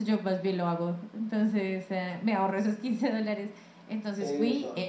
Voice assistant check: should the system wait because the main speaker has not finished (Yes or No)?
Yes